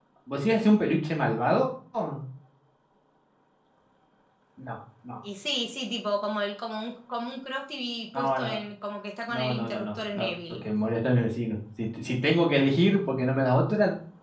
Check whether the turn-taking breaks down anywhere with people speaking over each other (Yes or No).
Yes